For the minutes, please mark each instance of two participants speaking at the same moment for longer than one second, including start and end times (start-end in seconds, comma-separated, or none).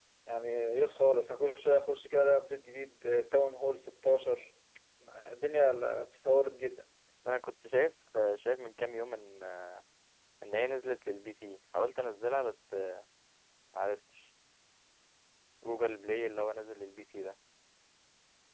none